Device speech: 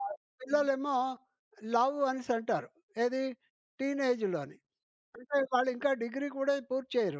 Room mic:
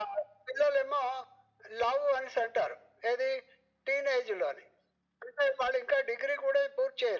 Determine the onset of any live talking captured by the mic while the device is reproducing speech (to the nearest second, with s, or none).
none